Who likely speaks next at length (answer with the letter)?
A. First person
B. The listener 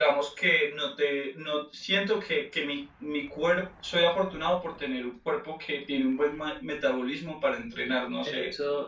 B